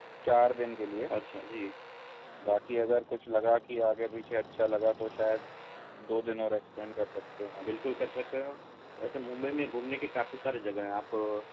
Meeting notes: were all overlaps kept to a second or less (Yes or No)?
Yes